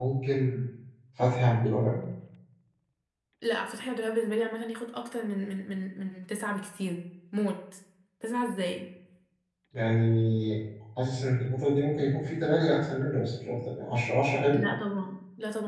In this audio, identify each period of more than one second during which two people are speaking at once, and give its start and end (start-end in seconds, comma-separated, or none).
none